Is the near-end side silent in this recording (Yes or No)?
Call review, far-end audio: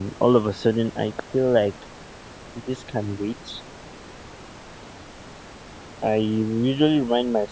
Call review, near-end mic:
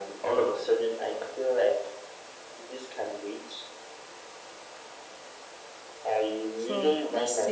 No